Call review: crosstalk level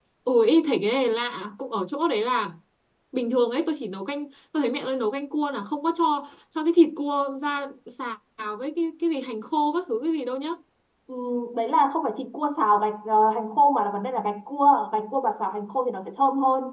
none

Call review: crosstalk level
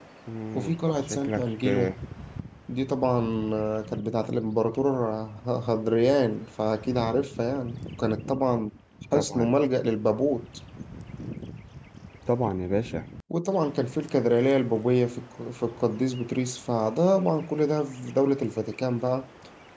present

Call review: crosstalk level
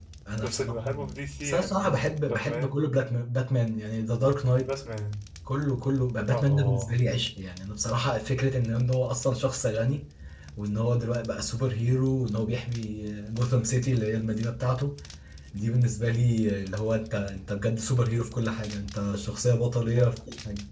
present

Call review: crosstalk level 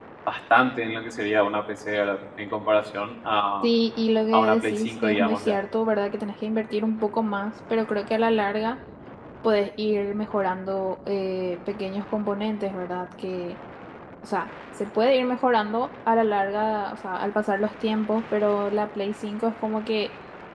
present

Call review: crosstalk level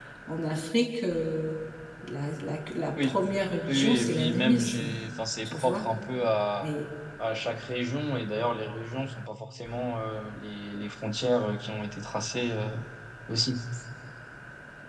present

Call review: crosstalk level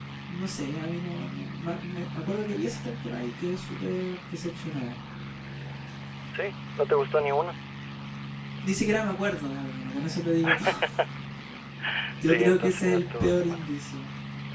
present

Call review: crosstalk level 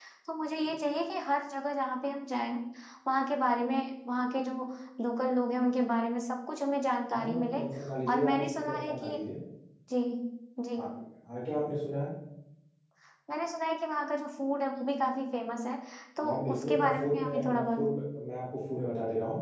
present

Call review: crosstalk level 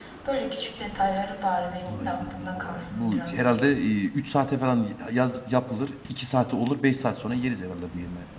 present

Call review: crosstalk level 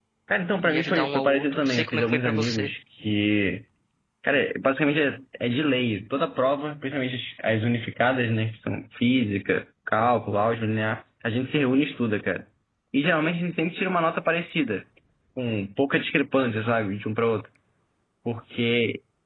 present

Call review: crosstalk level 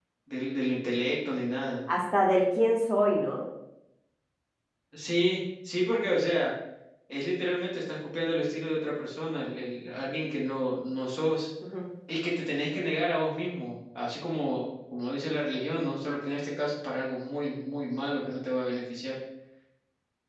none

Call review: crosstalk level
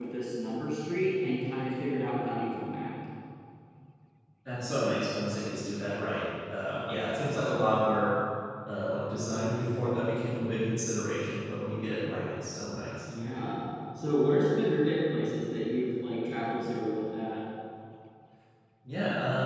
none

